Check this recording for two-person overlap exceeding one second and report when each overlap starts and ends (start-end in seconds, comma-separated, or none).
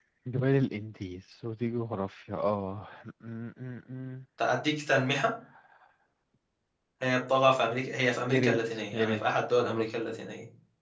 8.3-9.9